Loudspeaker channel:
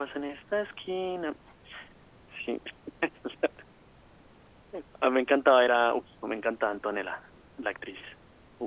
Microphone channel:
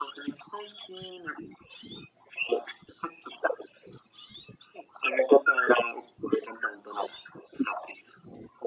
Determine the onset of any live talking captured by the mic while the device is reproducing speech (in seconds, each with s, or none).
none